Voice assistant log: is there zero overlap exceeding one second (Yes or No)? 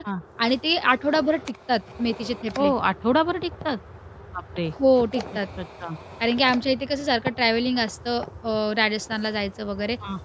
Yes